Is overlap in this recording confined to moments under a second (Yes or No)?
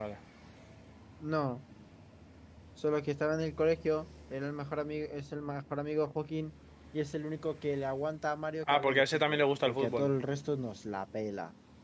No